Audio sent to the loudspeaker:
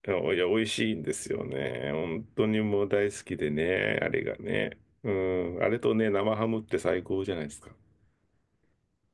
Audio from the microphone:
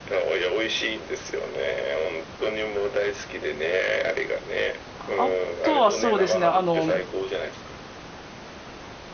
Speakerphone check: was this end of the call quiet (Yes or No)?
No